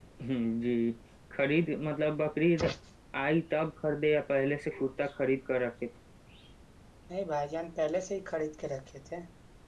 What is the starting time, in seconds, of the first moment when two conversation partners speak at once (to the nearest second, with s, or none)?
none